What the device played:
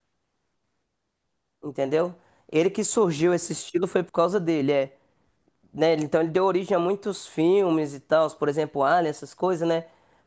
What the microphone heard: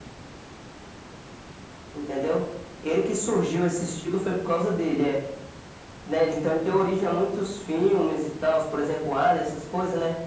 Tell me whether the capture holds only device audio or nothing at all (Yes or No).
Yes